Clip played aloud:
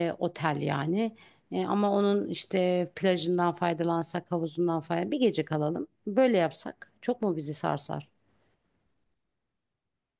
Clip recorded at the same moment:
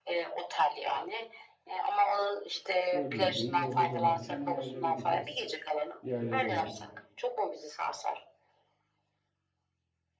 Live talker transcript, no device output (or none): dördüncü günü yolda dönerken bir yerlere gideriz. Bir yerlere uğrarız.